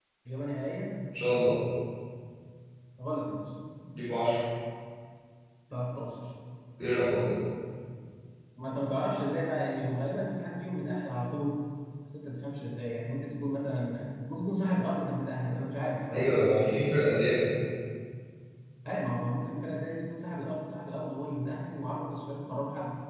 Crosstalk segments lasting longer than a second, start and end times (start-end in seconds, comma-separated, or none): none